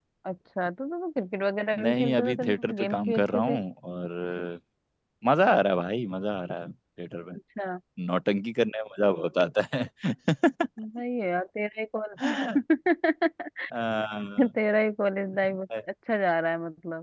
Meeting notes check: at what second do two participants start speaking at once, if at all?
2 s

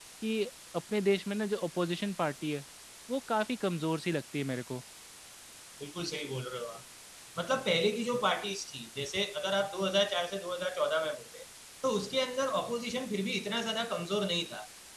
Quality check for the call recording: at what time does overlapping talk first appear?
none

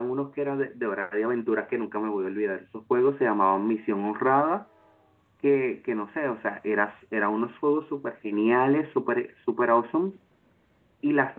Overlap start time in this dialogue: none

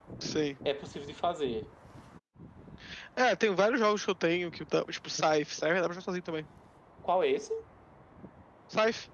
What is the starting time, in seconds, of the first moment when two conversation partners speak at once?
none

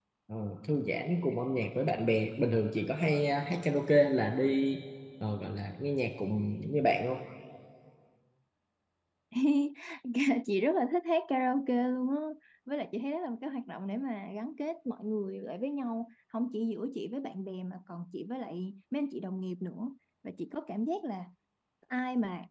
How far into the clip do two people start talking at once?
none

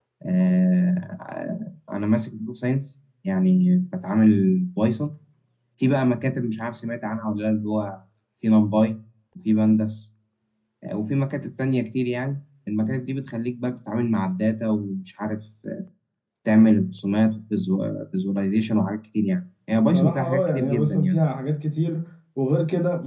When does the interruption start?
20 s

